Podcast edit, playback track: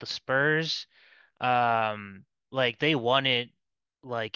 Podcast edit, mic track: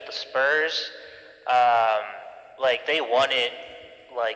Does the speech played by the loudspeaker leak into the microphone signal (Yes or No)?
Yes